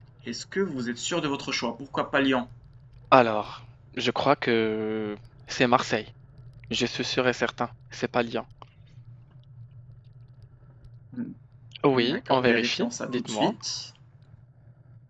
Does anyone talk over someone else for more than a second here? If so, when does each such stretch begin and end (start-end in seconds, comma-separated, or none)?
11.9-13.5